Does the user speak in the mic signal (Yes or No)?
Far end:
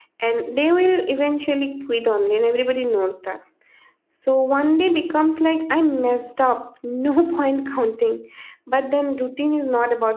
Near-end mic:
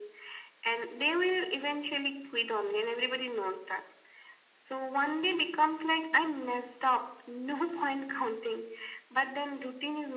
No